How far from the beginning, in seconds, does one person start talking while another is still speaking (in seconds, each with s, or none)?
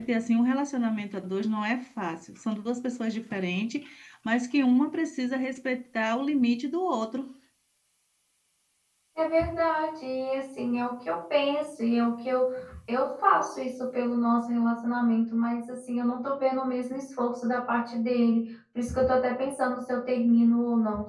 none